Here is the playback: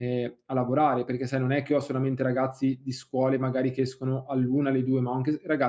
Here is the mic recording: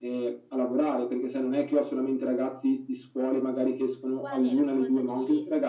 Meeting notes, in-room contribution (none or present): present